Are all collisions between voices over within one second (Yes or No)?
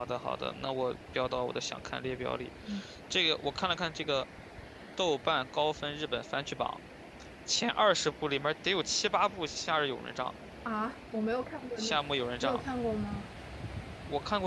Yes